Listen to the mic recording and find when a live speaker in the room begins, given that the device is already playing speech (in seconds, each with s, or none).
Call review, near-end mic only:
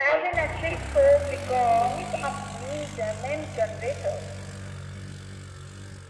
none